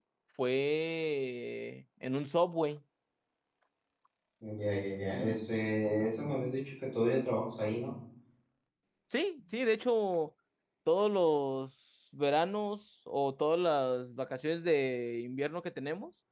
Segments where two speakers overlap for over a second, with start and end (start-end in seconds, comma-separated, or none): none